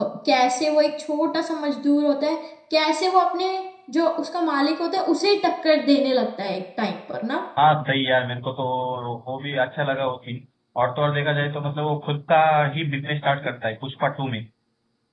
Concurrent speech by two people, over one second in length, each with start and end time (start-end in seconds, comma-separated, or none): none